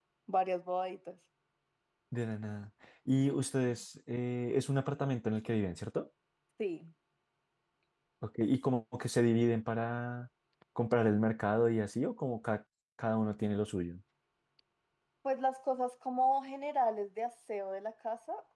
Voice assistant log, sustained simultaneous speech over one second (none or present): none